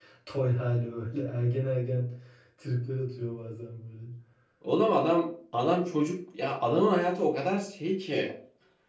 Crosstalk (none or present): none